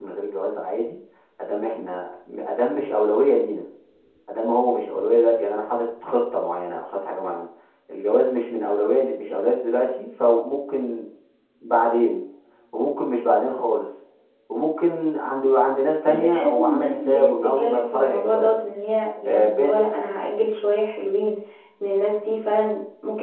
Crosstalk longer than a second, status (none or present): present